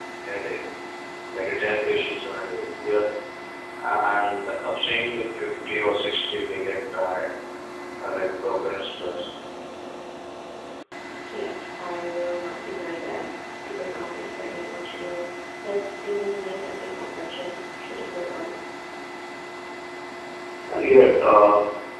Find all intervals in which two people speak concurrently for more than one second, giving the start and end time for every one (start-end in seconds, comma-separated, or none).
none